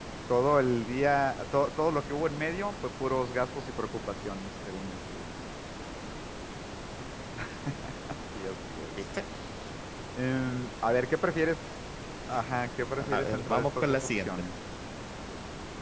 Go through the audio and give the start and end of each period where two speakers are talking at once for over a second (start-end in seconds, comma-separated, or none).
13.0-14.4